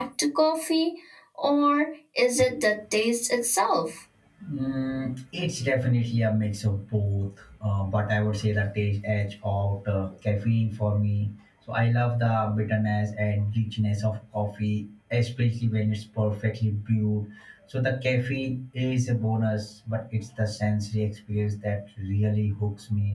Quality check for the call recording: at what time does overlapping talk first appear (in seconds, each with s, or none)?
none